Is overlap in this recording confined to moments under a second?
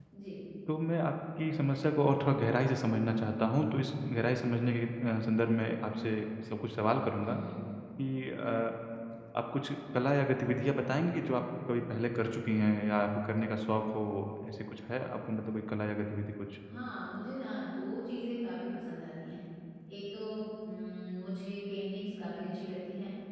Yes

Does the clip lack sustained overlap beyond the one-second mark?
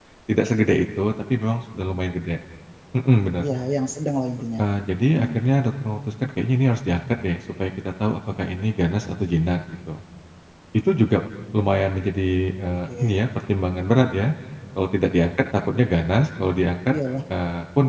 Yes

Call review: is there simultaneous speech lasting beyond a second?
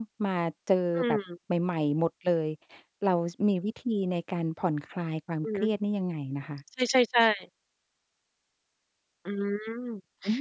No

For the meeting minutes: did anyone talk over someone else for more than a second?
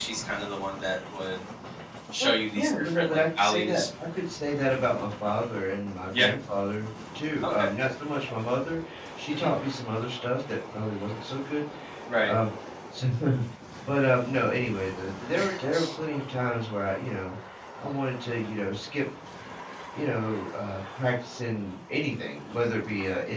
Yes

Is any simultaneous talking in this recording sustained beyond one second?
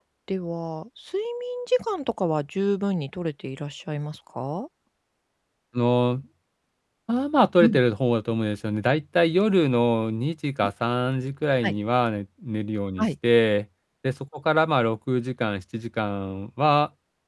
No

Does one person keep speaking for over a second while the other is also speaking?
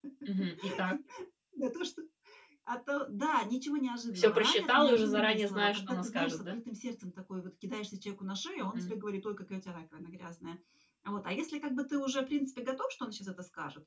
Yes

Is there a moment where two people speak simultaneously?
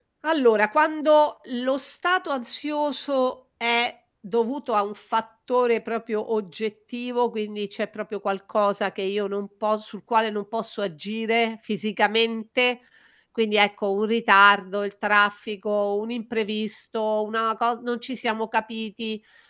No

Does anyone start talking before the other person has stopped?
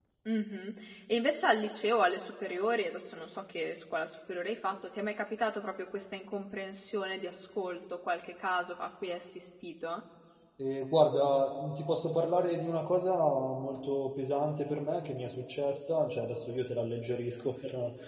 No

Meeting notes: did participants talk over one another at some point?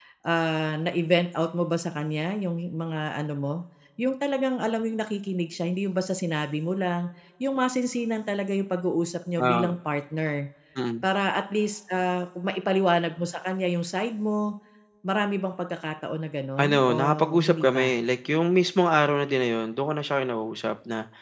Yes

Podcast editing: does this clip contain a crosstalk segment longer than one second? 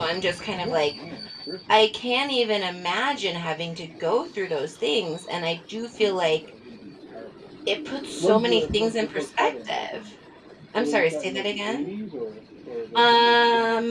Yes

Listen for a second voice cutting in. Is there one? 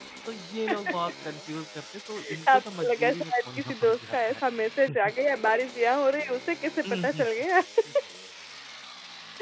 Yes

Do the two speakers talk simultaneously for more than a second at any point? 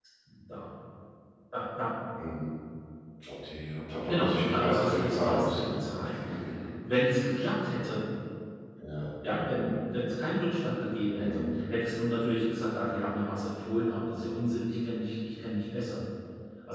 Yes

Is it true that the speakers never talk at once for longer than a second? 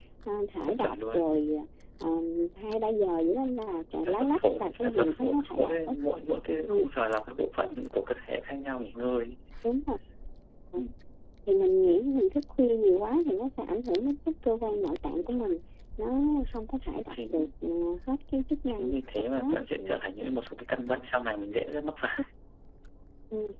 No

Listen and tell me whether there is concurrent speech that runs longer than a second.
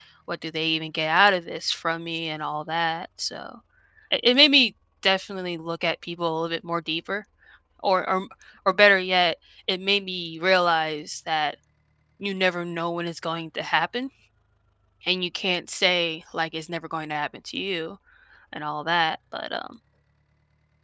No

